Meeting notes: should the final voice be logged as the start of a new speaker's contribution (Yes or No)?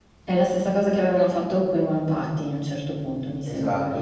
Yes